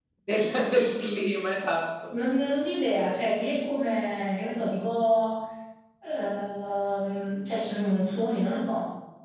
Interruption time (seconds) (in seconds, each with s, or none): none